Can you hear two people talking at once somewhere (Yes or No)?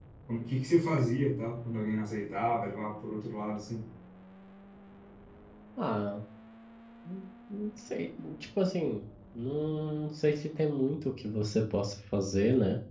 No